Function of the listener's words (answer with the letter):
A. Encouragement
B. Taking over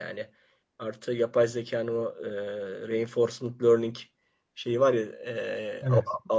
A